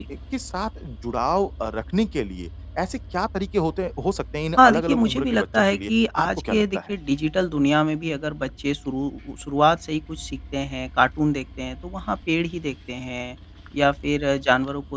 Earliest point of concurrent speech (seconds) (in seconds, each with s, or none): 4.6 s